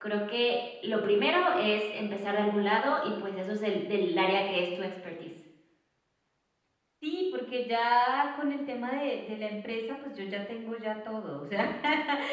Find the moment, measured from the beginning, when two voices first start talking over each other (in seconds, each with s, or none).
none